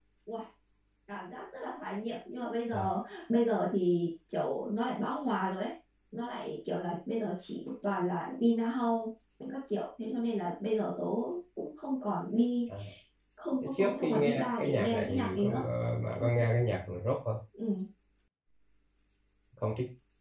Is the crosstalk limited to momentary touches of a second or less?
No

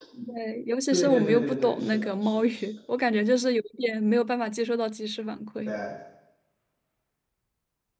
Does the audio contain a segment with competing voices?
Yes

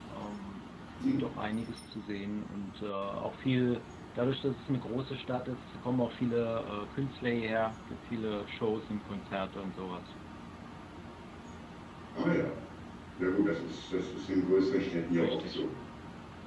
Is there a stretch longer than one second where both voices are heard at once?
No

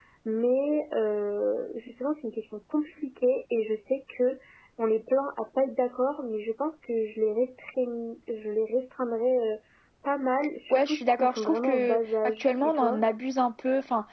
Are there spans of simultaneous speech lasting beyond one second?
Yes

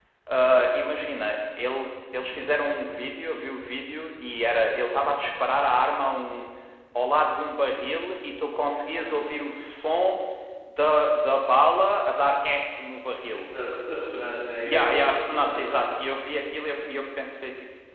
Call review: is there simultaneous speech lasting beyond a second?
Yes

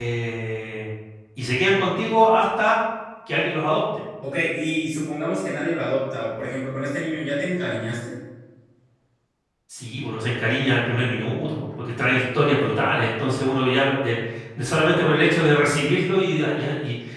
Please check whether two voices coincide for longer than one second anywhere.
No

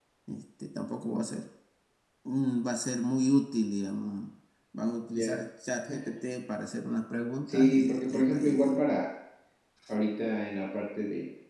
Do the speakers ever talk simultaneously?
Yes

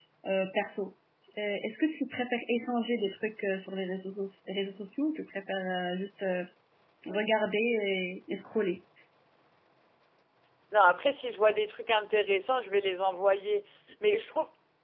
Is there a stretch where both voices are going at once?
No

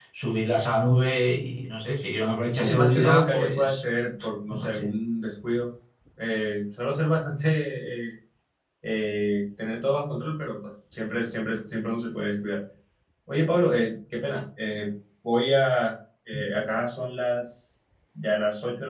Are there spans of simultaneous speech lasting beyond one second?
Yes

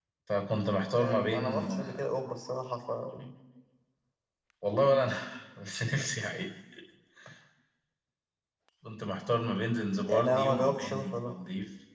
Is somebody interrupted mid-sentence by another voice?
Yes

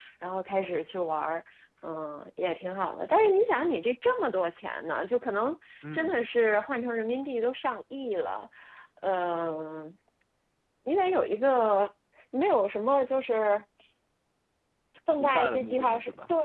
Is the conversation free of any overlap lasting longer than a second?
No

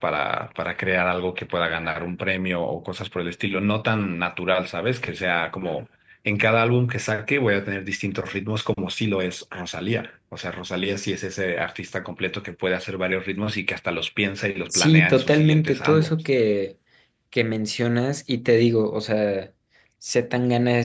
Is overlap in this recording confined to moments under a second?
No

